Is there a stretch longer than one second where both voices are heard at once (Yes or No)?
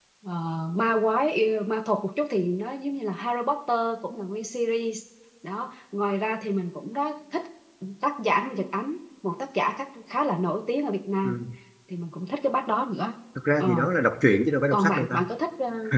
No